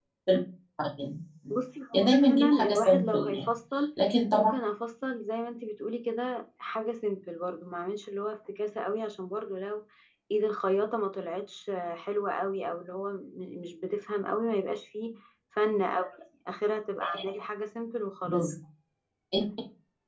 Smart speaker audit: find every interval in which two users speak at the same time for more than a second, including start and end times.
1.9-3.5

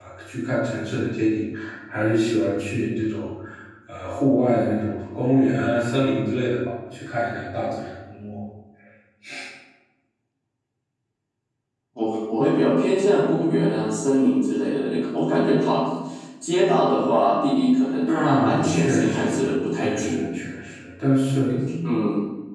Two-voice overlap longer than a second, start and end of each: 18.1-20.3

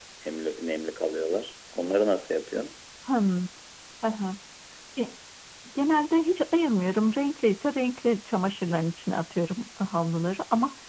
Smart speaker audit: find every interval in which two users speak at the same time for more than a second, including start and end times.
none

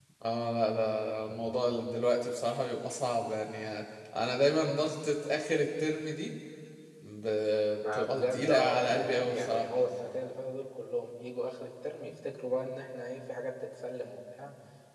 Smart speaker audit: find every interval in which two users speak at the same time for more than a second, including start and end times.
7.9-9.7

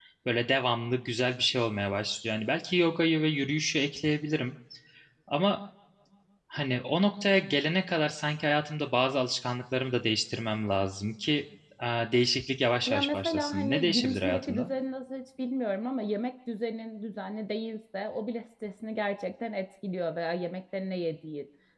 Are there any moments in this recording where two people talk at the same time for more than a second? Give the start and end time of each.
12.9-14.7

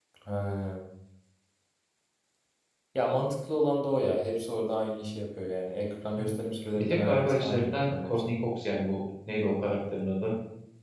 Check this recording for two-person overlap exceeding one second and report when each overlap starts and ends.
6.8-8.4

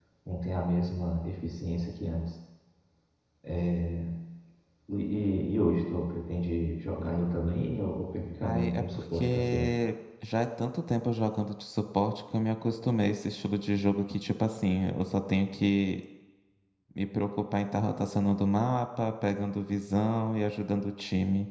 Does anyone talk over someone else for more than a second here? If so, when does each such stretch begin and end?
8.4-9.7

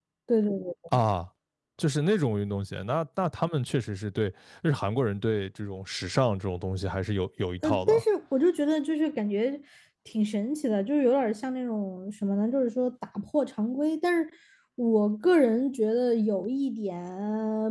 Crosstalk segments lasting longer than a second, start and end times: none

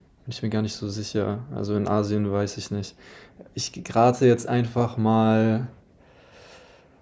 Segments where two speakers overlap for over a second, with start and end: none

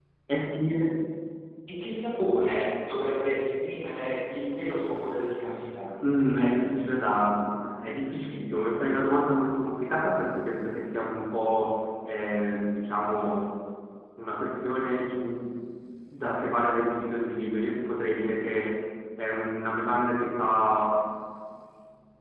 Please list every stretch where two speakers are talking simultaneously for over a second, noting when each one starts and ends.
none

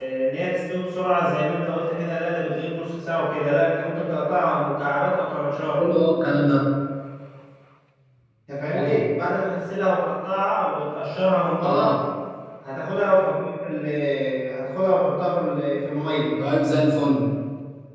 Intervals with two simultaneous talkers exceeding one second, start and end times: none

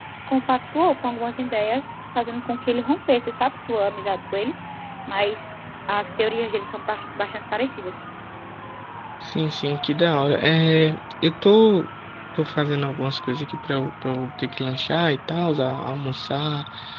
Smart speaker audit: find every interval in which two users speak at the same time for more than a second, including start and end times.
none

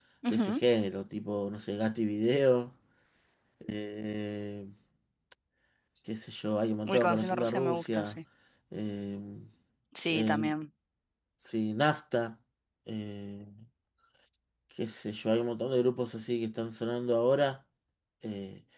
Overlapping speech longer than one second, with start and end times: 6.9-8.2

